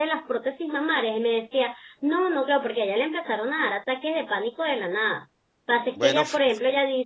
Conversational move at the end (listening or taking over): listening